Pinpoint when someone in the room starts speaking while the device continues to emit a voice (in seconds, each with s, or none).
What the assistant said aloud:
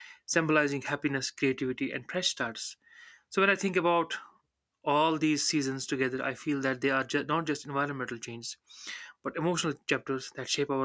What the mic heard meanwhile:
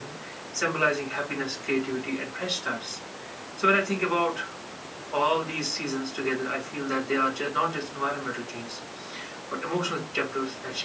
none